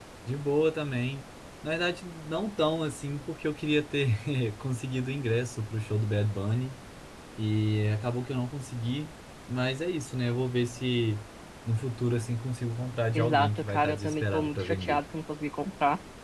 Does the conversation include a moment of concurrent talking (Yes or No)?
Yes